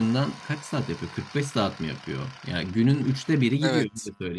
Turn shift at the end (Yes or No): No